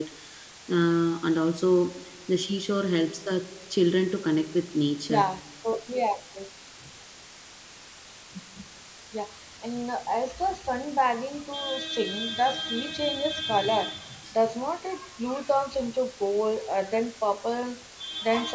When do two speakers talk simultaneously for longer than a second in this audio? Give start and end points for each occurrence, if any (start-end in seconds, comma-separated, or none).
none